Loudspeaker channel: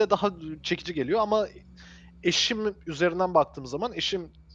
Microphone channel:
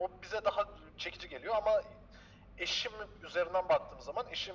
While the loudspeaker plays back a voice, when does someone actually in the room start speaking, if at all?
none

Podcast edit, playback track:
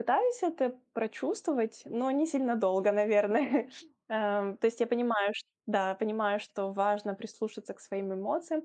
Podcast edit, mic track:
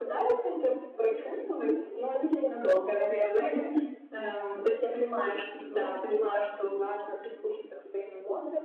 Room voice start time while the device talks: 5.2 s

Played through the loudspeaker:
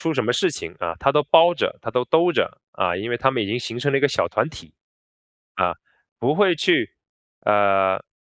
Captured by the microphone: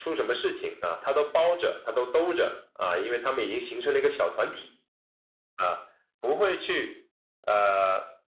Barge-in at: none

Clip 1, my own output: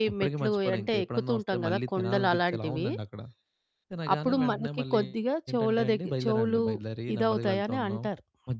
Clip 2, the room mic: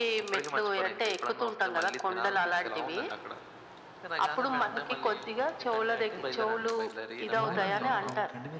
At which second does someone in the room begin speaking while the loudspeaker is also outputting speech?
7.4 s

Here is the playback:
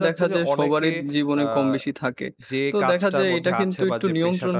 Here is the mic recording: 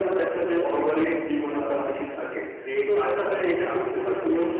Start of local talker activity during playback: none

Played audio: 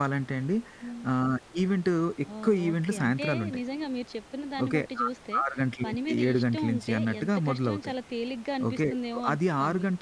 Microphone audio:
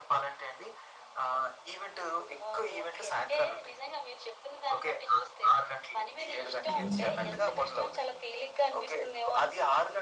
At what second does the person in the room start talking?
6.7 s

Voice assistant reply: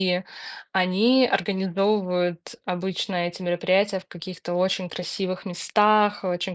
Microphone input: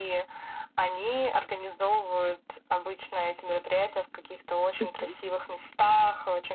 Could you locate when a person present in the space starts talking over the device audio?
4.8 s

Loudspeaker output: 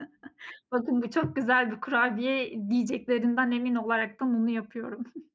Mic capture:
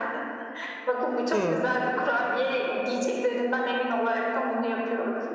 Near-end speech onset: 1.3 s

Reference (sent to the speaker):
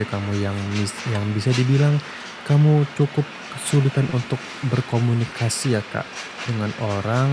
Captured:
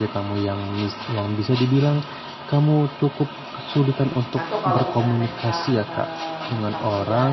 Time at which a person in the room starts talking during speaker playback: 4.3 s

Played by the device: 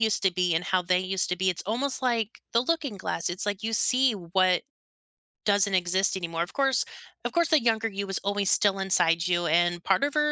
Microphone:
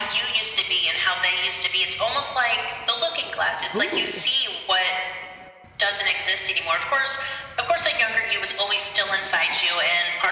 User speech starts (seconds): 3.7 s

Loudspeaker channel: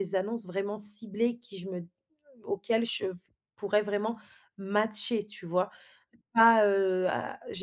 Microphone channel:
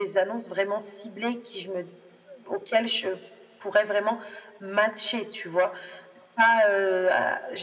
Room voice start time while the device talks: none

